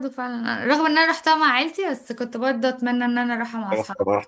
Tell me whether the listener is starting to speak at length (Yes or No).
Yes